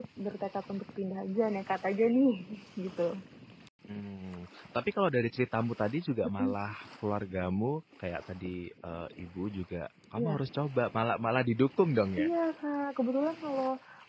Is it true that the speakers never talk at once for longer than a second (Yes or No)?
Yes